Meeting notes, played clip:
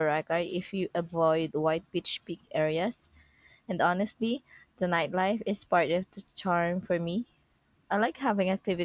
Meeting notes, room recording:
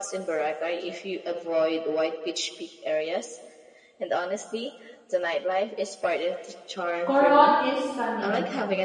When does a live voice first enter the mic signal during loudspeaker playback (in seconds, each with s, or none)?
7.0 s